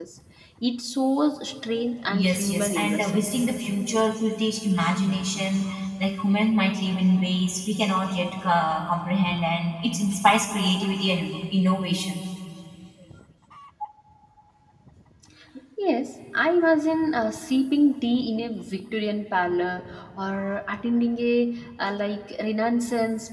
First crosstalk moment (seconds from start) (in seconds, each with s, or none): 2.1 s